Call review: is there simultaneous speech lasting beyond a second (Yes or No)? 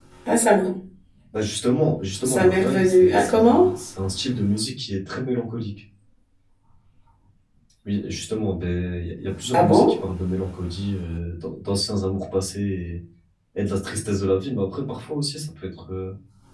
Yes